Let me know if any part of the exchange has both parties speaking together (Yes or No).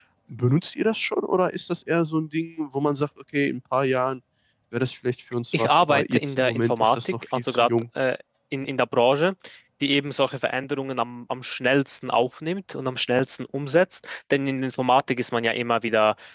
Yes